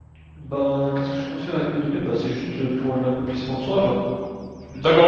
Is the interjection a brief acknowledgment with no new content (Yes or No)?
No